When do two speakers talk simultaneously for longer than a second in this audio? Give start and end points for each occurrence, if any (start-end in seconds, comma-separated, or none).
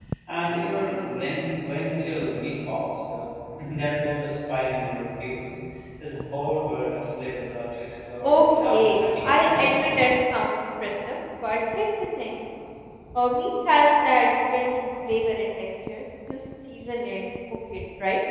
8.2-9.8